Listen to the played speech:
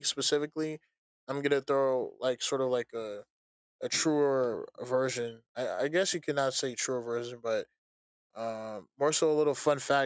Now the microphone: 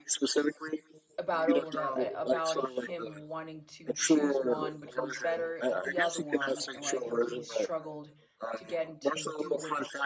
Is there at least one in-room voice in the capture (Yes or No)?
Yes